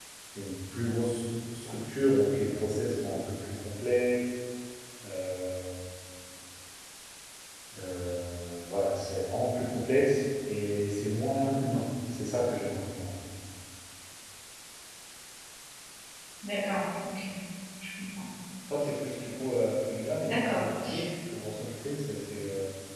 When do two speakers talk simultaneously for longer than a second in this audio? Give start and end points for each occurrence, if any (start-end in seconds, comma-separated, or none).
none